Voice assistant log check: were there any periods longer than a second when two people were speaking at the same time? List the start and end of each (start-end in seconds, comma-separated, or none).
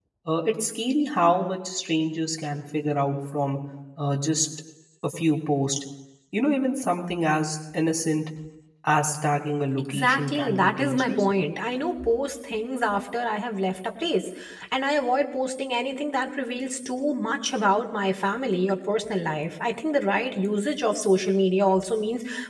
9.8-11.3